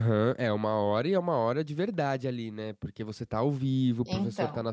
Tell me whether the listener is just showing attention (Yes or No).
Yes